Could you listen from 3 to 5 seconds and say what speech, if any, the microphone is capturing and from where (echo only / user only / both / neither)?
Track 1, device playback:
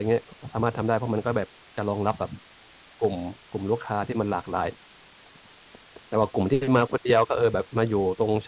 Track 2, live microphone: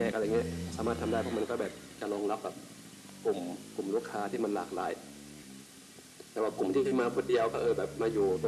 echo only